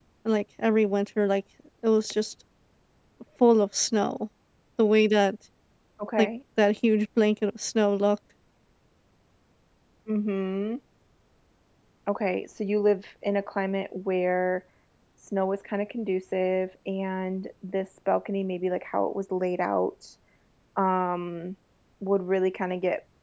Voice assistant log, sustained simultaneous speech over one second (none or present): none